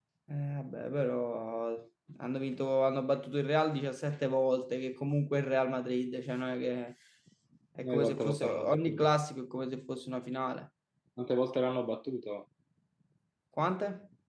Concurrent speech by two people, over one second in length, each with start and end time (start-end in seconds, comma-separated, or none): 7.8-9.1